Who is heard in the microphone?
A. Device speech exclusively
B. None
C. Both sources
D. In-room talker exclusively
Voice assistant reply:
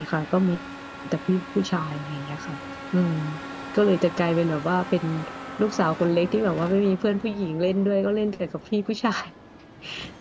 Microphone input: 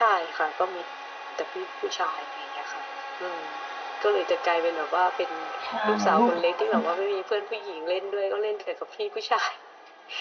C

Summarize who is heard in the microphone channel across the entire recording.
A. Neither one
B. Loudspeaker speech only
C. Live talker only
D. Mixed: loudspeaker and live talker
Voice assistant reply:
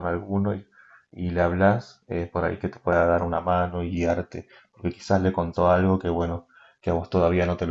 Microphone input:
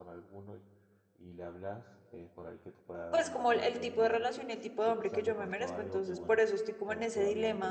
D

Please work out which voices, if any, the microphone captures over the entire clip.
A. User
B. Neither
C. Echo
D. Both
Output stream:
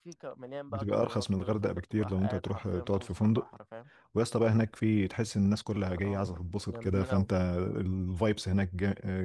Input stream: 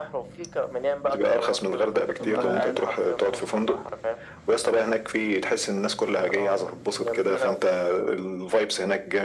D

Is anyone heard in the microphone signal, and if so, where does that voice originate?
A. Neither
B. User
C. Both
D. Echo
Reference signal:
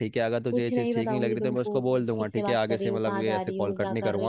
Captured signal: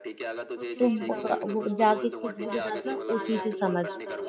C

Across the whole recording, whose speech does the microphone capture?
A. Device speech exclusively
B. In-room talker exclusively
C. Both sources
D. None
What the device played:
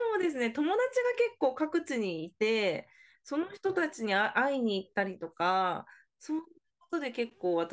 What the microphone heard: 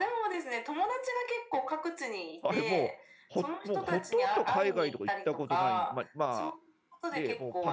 C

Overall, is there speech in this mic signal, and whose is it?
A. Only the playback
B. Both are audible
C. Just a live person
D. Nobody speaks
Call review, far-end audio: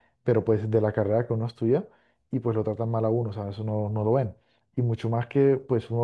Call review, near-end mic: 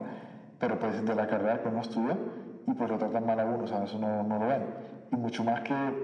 A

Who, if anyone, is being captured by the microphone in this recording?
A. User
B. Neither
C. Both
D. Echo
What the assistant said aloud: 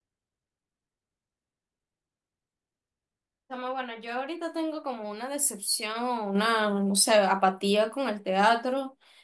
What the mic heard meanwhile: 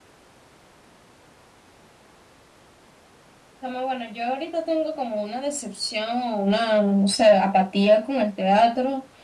D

